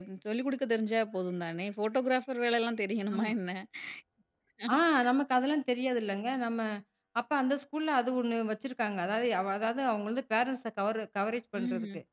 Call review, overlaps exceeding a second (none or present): none